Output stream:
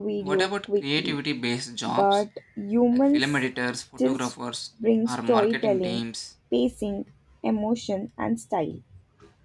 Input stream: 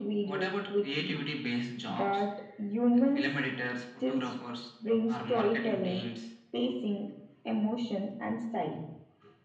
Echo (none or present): present